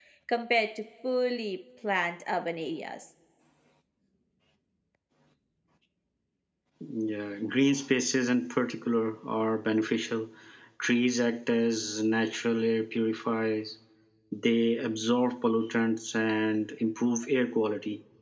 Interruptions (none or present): none